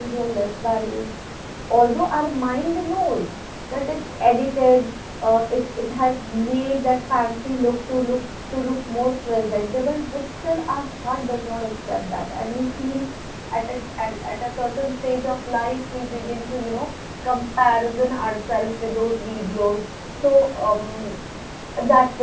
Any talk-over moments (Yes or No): No